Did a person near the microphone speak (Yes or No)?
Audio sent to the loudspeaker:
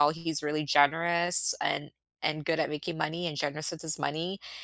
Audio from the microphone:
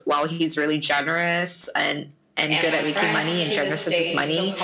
Yes